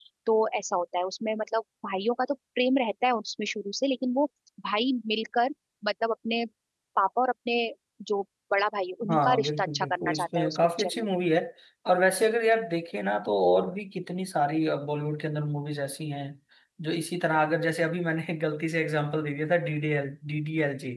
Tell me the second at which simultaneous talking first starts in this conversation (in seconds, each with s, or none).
9.0 s